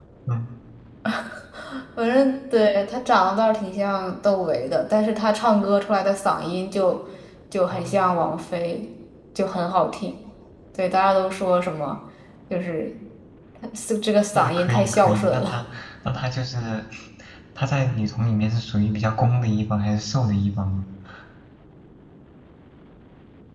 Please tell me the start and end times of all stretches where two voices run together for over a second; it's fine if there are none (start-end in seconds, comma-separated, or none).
14.3-15.6